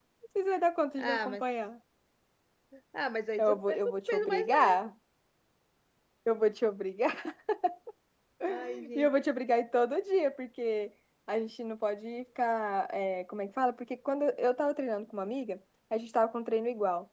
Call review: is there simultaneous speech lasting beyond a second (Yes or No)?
Yes